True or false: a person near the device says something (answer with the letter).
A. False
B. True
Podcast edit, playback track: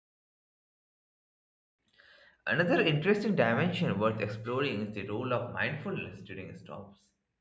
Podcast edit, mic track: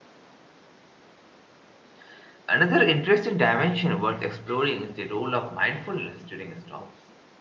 A